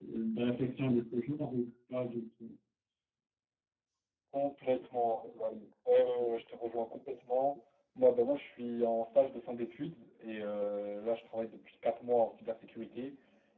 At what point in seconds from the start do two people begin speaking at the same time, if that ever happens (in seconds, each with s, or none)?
none